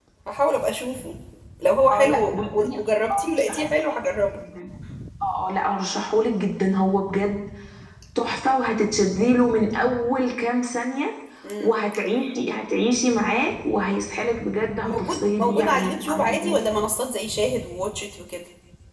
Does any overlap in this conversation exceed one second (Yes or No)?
Yes